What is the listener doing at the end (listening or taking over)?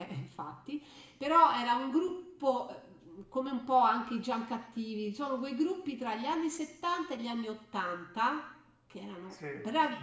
listening